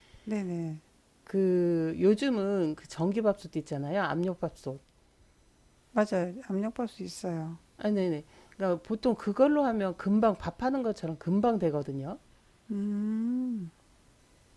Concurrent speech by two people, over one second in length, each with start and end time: none

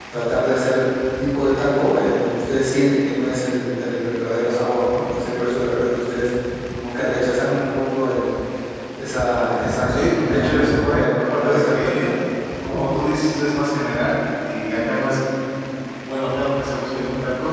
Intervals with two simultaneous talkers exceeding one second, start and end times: 9.9-12.1

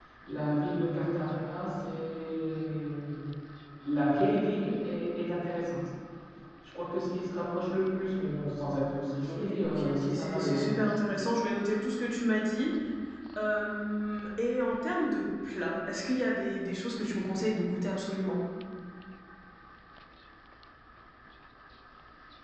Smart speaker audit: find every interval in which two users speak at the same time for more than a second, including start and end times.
9.3-10.9

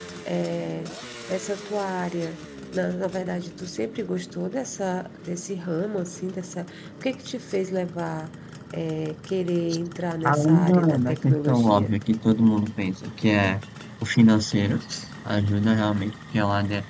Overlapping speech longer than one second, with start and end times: 10.2-11.9

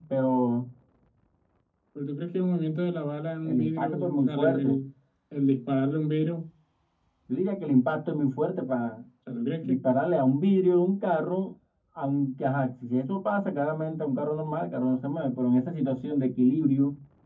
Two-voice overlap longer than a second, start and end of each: 3.4-4.8

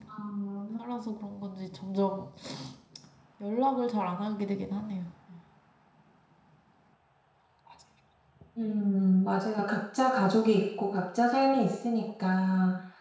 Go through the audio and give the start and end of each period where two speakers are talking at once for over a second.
none

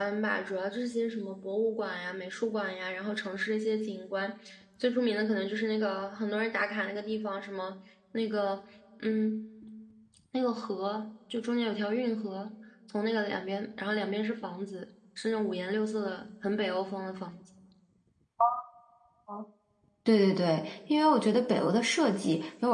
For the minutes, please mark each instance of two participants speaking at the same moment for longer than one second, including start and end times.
none

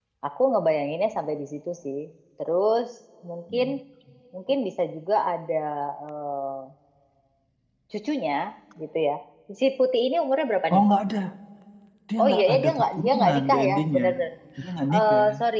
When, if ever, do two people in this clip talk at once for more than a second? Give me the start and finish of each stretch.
12.2-14.0

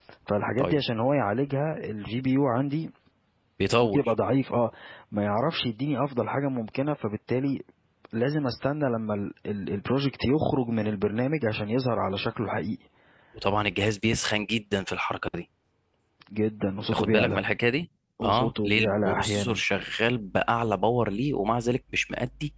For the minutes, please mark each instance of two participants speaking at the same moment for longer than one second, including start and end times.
18.2-19.6

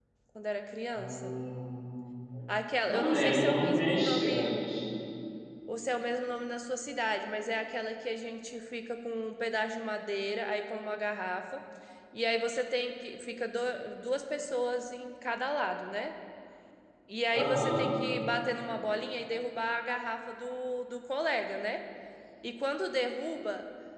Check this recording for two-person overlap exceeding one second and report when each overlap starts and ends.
2.9-4.5

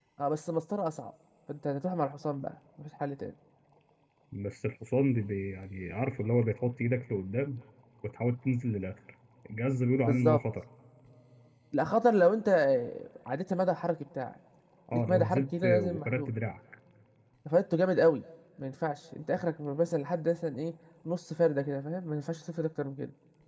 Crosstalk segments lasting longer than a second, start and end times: 14.9-16.3

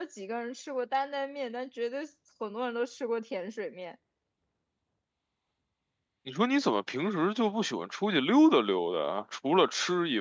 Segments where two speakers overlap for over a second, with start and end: none

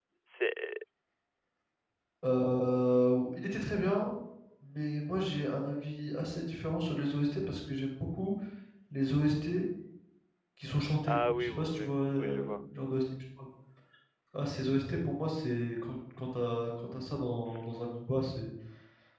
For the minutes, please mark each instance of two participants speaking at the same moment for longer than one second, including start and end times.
11.1-12.5

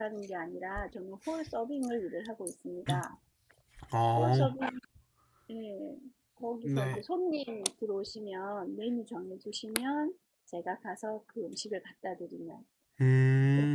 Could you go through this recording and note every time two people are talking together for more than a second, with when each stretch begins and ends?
none

